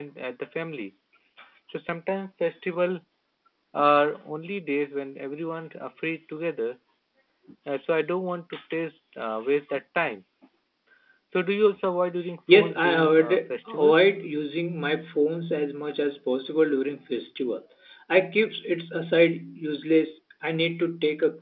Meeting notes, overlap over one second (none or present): present